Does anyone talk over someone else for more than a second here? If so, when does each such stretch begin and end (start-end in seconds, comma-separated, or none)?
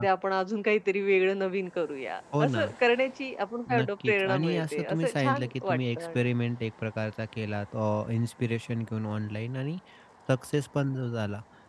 3.8-6.3